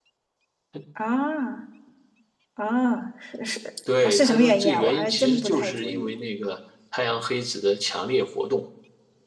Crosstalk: present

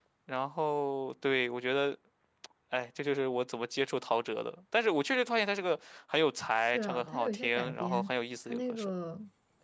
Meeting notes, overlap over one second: present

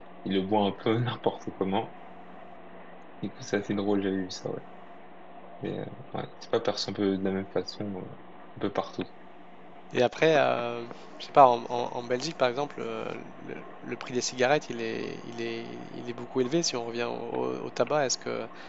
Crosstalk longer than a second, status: none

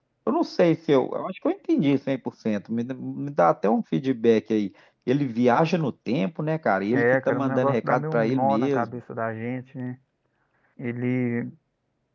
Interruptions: present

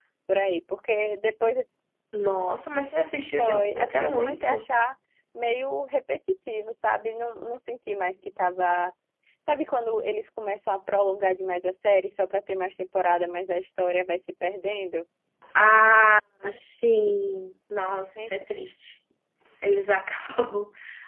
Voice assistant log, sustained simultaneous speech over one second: present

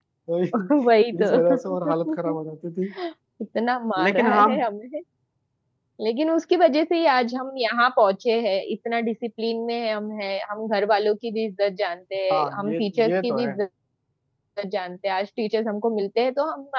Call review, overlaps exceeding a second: present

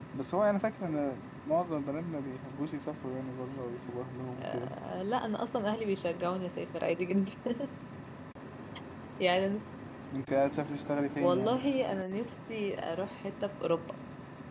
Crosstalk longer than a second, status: none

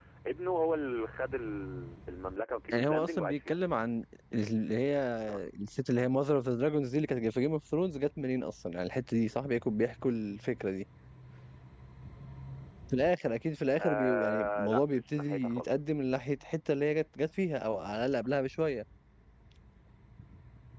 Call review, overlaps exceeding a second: present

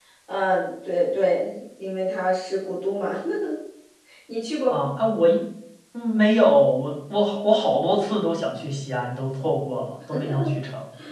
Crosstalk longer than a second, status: none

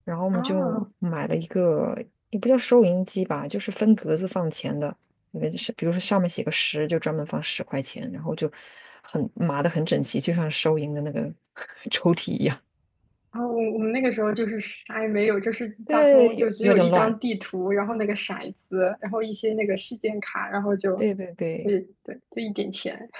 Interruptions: present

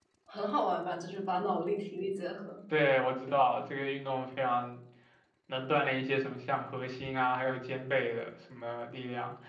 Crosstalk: none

